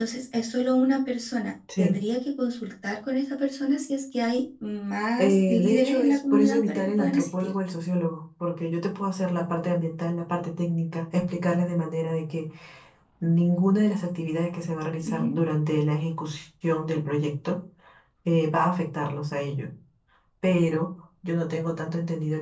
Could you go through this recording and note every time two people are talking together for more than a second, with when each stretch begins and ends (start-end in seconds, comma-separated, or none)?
5.2-7.5